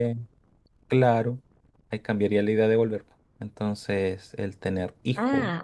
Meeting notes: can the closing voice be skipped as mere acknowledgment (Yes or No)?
No